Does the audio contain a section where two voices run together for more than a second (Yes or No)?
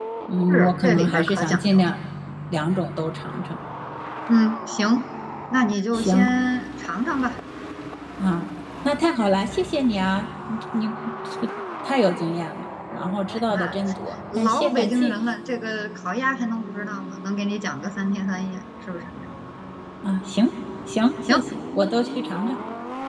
Yes